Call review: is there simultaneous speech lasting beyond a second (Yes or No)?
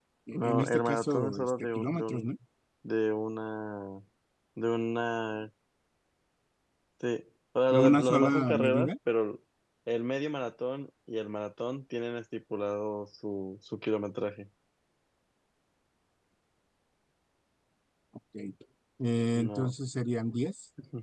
Yes